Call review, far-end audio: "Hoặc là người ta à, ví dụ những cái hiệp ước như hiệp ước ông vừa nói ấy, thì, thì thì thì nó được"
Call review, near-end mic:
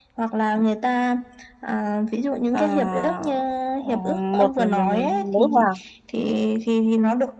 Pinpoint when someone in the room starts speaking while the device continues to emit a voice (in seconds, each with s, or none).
2.5 s